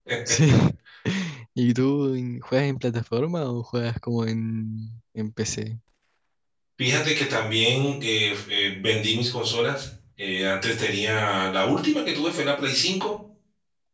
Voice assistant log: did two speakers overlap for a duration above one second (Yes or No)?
No